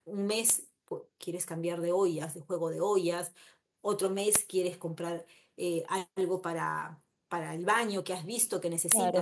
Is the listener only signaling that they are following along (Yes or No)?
No